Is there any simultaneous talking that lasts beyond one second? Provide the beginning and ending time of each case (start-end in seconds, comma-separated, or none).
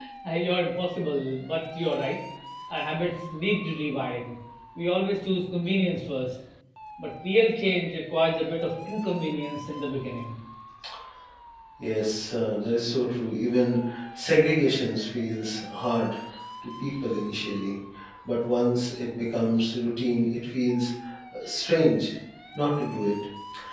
none